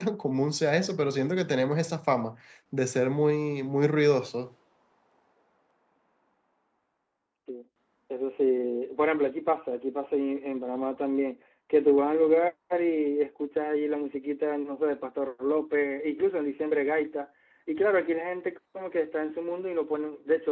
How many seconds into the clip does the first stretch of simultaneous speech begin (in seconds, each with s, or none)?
none